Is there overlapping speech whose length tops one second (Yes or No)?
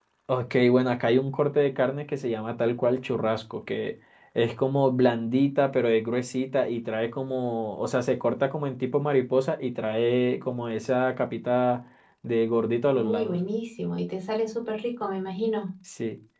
No